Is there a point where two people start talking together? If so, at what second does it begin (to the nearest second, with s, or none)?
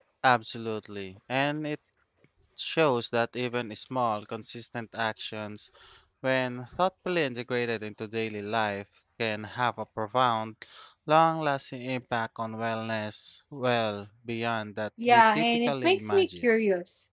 15 s